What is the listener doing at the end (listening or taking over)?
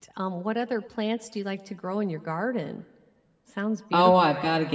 taking over